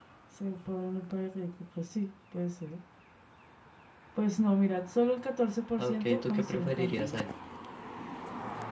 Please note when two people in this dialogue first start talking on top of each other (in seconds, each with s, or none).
5.8 s